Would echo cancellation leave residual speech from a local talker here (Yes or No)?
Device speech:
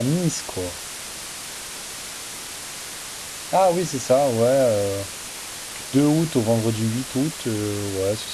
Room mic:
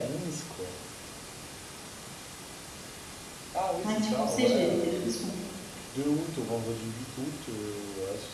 Yes